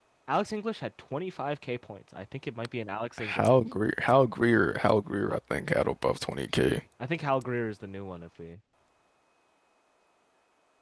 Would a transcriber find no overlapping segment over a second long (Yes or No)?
Yes